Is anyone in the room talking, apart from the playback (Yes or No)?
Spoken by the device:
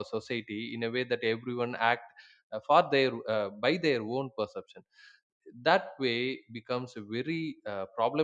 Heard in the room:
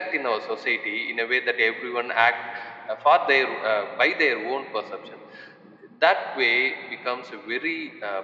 No